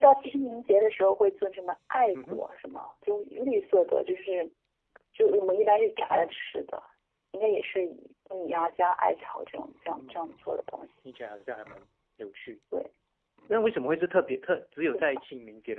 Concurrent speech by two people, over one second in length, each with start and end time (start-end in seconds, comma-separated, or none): none